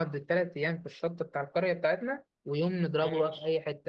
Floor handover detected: No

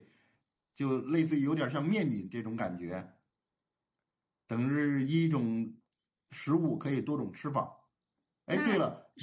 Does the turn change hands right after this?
No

